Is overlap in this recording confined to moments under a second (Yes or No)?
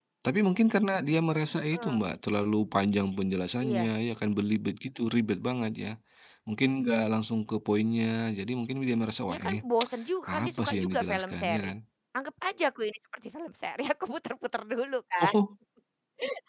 No